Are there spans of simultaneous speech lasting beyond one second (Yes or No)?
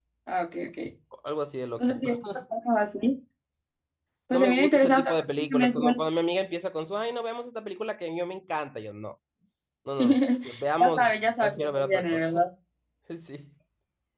Yes